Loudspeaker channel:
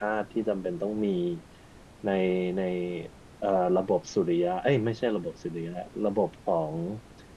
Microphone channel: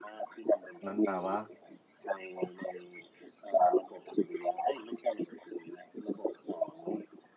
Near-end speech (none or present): present